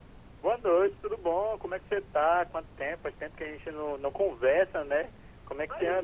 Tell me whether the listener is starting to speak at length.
Yes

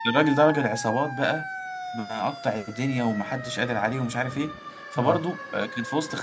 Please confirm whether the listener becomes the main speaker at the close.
No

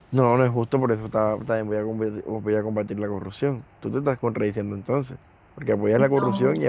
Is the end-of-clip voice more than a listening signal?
No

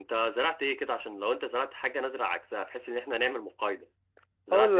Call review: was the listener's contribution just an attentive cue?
No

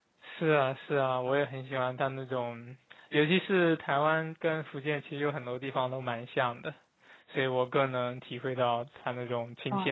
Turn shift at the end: Yes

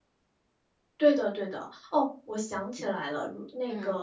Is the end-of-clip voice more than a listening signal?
No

